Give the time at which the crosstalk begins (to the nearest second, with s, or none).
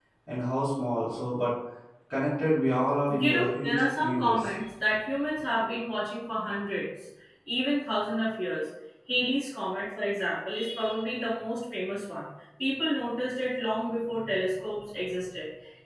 3 s